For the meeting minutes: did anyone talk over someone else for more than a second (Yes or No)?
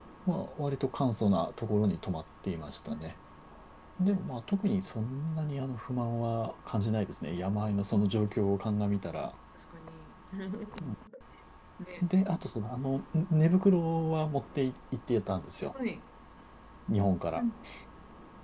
No